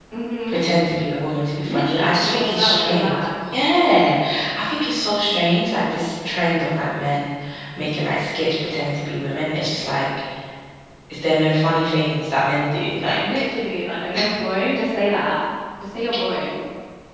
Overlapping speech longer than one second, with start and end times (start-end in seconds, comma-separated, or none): 1.6-3.4